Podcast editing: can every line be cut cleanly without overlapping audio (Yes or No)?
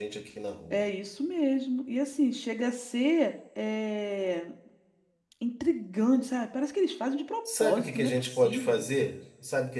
No